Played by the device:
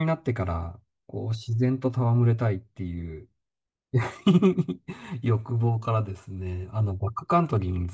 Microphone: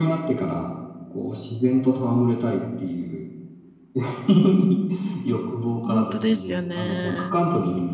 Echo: present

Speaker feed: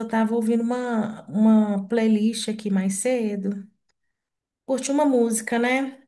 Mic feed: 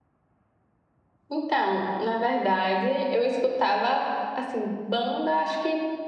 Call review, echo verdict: none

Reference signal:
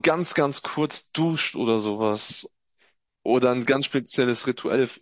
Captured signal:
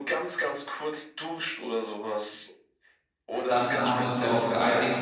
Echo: present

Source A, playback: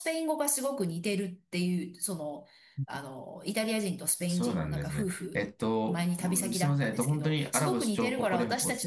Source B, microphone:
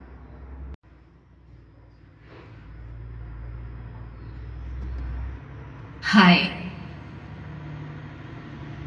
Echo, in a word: none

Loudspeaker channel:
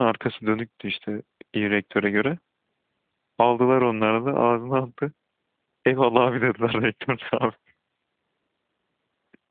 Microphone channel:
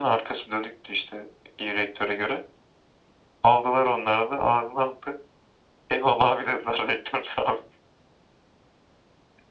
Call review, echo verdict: present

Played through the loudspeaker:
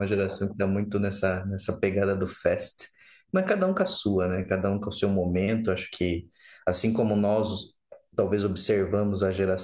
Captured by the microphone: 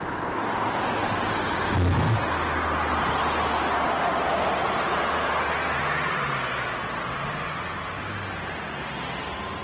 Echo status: none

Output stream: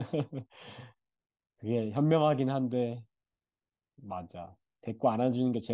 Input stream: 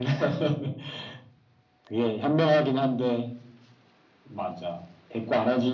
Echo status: present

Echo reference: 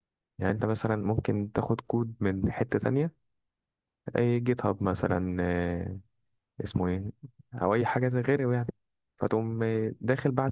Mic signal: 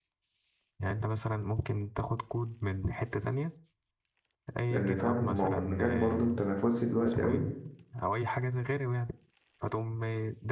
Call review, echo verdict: present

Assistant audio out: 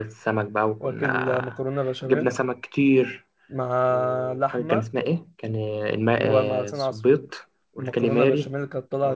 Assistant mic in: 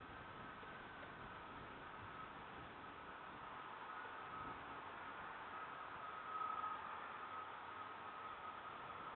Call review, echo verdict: none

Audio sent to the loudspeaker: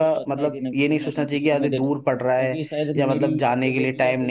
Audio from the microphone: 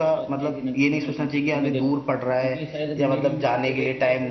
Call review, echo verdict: present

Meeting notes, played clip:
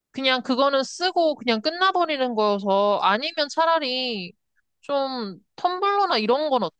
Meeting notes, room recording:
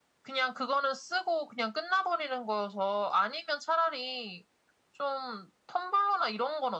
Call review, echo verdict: present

